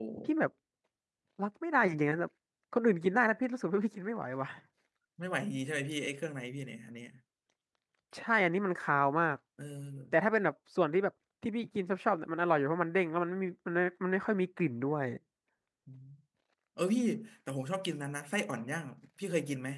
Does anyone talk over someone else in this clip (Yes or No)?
No